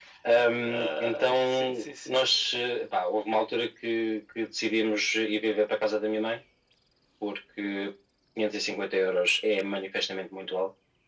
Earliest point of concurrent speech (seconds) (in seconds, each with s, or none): 0.6 s